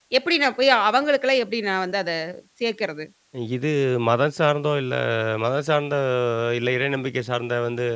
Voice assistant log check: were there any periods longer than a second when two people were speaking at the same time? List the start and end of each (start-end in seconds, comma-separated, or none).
none